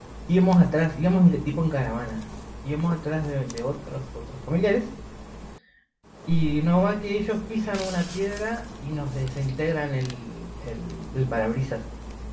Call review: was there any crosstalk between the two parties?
No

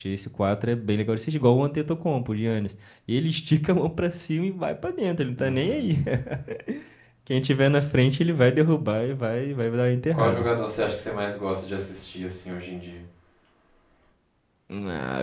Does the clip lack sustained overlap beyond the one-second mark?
Yes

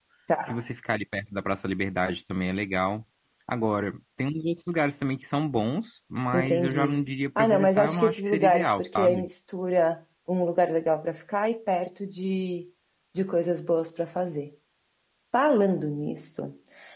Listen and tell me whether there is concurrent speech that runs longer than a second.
Yes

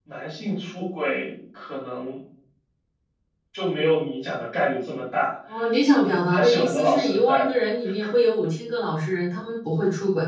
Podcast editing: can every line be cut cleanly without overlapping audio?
No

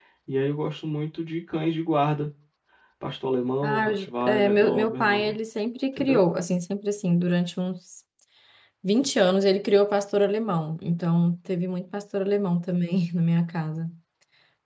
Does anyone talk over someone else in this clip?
Yes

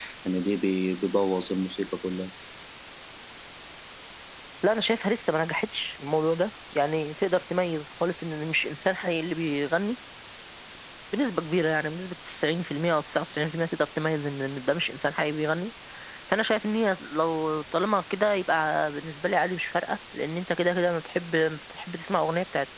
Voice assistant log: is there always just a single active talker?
Yes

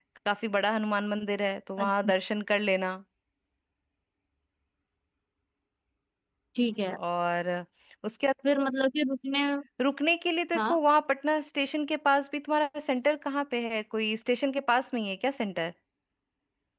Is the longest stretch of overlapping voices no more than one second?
Yes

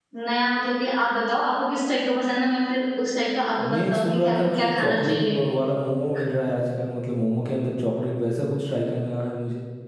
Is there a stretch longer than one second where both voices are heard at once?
Yes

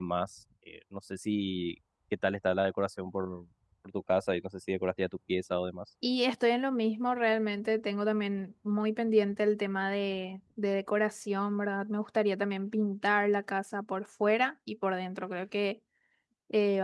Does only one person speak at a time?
Yes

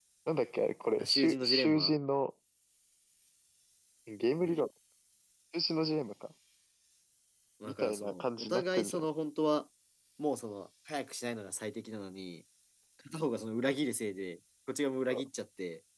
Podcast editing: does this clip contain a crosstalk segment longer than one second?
Yes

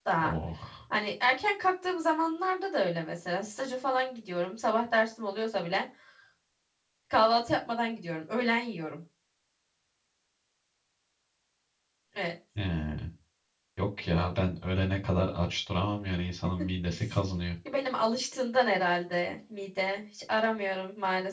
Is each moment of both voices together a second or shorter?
Yes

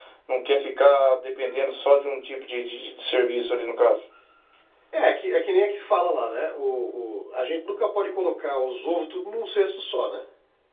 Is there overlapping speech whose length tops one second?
No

